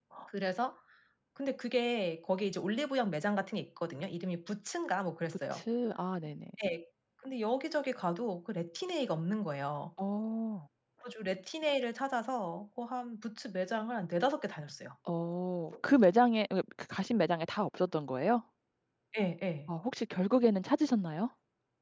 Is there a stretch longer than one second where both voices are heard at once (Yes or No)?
No